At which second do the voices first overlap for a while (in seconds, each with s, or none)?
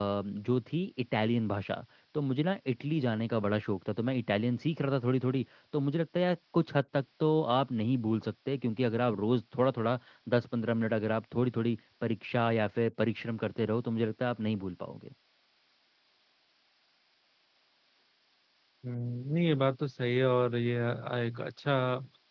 none